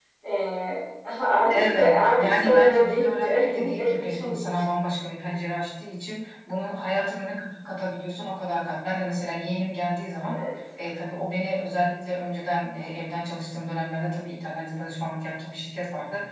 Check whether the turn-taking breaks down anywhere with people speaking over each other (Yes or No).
Yes